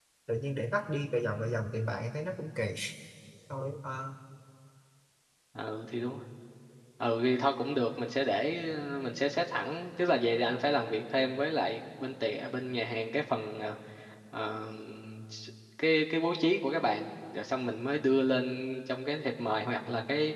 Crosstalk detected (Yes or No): No